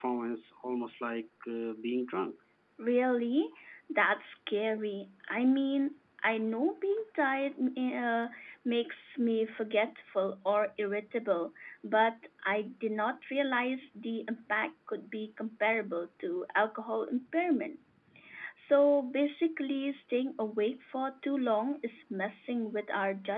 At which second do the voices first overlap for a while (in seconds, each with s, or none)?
none